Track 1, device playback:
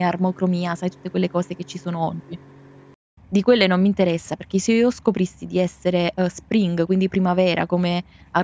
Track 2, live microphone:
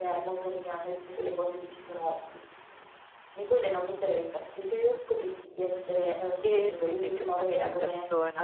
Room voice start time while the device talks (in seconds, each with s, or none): 6.4 s